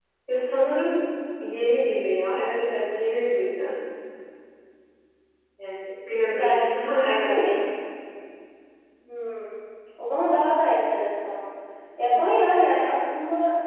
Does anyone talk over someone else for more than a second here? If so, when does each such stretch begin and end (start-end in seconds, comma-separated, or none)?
6.3-7.5